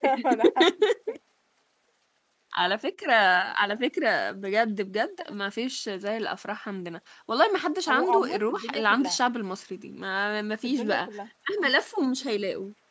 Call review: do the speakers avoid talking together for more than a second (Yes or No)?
No